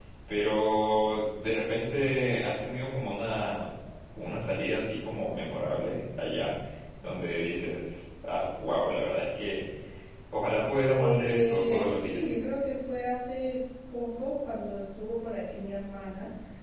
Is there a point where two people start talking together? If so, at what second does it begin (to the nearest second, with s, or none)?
11 s